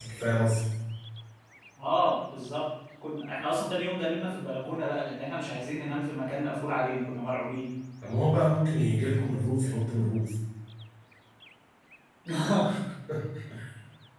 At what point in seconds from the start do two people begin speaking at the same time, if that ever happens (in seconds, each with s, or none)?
none